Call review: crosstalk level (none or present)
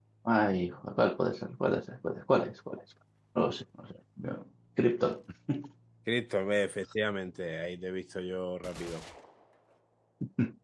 none